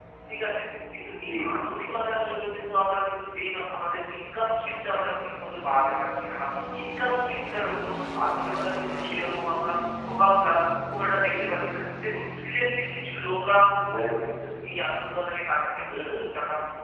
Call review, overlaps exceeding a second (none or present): none